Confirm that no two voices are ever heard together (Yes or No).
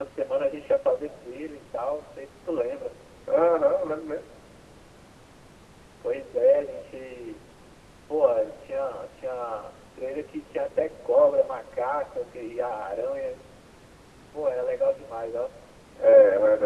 Yes